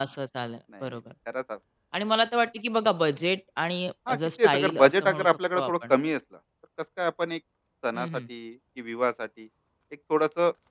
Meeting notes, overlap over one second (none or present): present